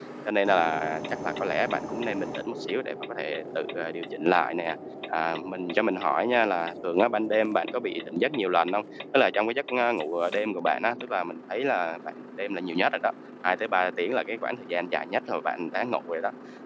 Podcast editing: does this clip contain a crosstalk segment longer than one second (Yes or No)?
No